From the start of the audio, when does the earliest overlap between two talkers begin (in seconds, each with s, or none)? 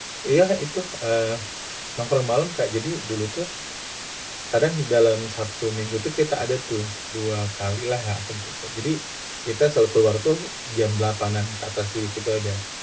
none